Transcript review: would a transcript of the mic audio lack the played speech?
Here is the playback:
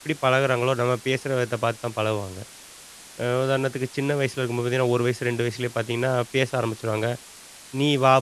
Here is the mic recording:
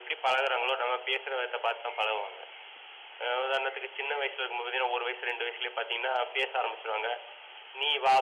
No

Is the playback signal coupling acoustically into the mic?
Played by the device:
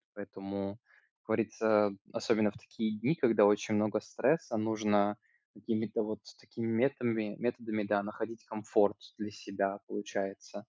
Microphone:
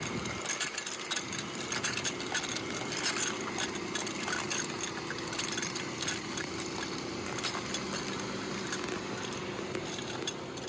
No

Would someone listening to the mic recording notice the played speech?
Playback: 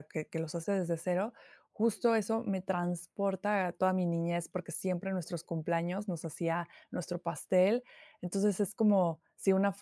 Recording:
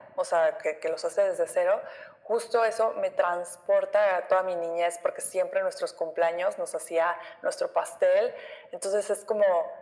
Yes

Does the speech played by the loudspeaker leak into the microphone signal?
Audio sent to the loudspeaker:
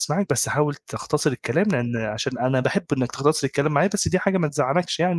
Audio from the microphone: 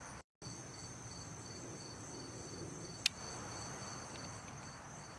No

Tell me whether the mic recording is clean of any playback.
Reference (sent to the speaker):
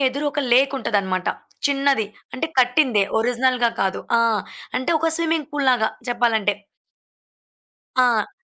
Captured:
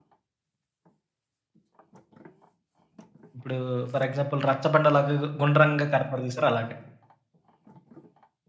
Yes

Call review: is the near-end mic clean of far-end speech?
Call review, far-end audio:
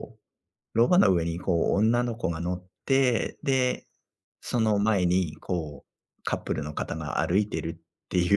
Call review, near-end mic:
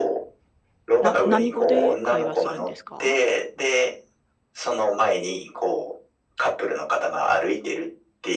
No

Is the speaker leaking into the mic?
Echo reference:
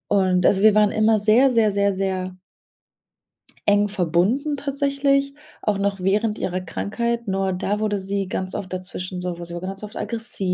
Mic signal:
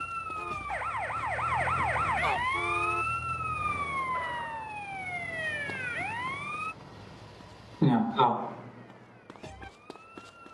No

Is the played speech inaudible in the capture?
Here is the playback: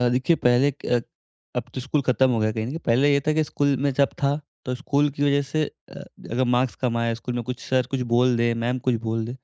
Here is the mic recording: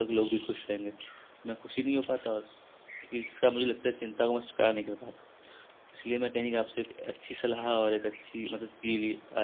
Yes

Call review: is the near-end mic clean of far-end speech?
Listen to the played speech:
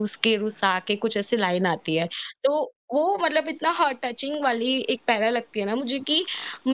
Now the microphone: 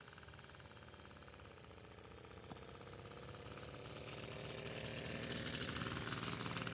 Yes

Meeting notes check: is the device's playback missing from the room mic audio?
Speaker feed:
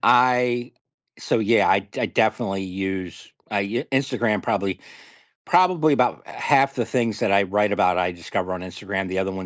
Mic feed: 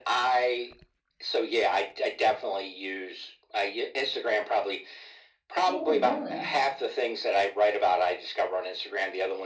No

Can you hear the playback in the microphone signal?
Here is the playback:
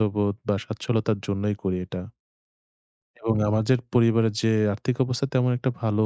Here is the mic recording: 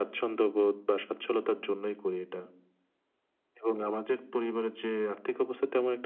Yes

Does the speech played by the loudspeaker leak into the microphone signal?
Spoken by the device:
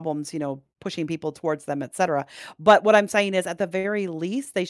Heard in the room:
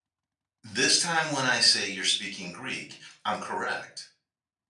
No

